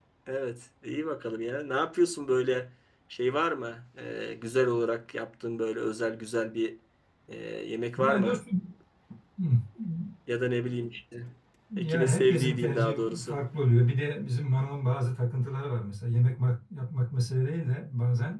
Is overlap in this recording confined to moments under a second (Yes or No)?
No